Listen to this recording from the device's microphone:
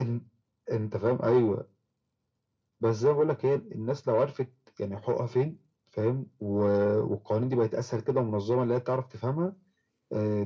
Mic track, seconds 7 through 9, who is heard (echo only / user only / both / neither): echo only